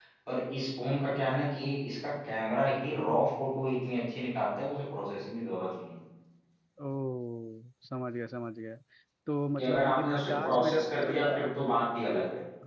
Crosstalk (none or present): present